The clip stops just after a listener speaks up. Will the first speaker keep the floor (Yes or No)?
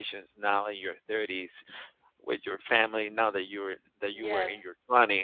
Yes